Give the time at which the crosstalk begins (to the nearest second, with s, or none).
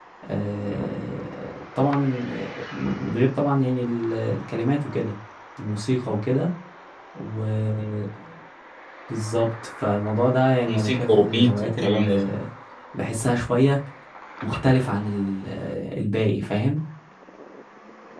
11 s